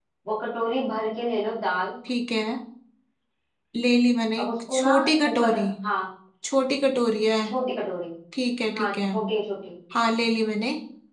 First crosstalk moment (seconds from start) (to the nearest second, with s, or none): 4 s